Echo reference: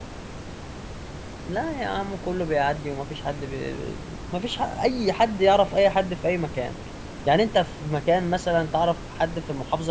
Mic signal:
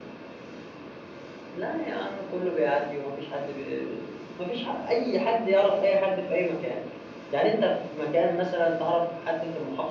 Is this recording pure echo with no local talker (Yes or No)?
Yes